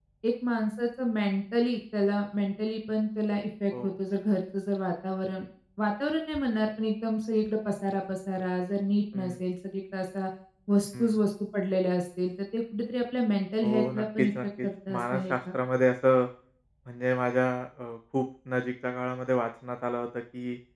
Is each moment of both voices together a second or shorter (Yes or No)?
No